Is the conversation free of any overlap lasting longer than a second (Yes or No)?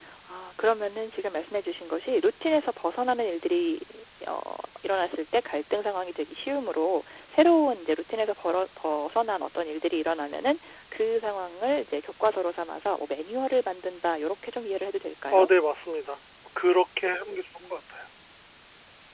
Yes